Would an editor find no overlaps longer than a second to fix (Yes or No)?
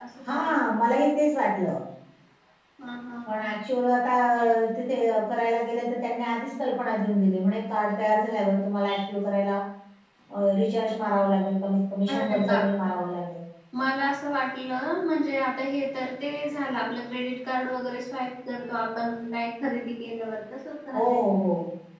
Yes